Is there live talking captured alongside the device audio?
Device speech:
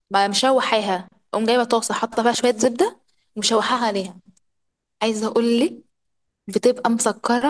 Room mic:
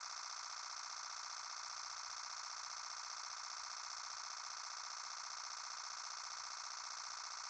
No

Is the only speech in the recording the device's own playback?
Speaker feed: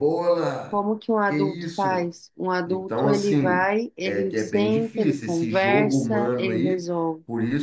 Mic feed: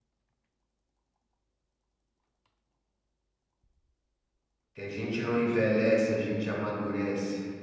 No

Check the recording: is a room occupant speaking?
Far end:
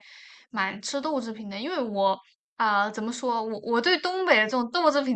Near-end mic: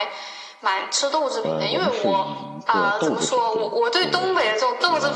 Yes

